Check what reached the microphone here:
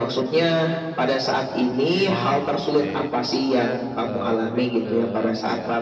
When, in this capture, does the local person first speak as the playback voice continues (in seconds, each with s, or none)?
2.1 s